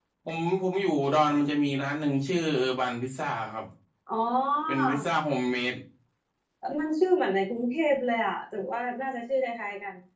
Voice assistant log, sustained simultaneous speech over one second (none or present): none